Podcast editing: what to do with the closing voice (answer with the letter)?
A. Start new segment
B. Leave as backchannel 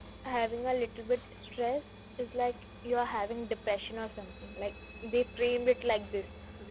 A